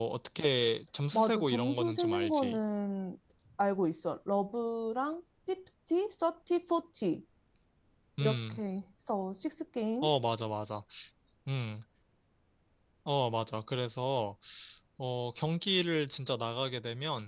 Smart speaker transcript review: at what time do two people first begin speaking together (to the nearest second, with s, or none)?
1 s